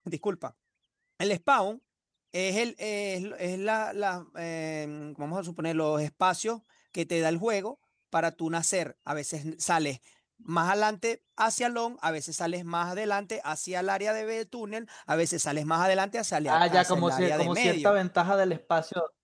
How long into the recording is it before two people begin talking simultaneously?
16 s

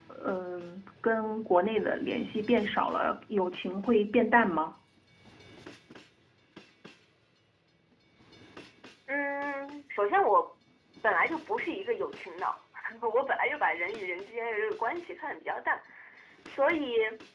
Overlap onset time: none

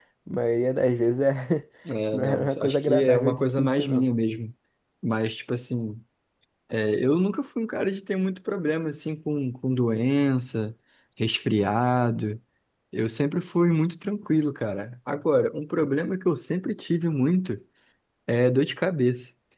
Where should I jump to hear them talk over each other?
2 s

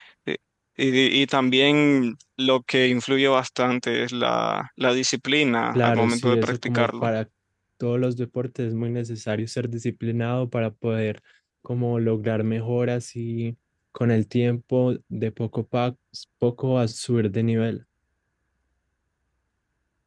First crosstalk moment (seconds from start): 6 s

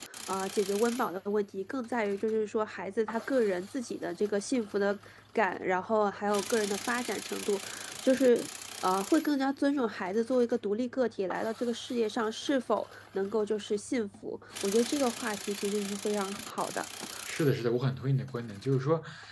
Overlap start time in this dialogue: none

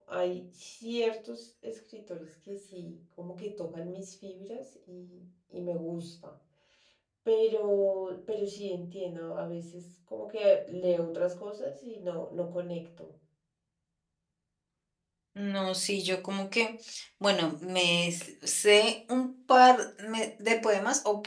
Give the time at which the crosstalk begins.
none

